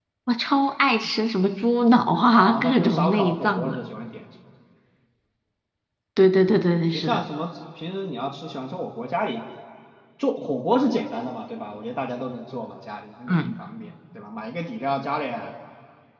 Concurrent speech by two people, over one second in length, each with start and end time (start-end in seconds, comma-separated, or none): 2.2-3.8